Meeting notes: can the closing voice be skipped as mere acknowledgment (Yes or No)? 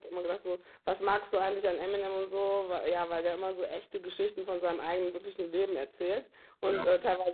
Yes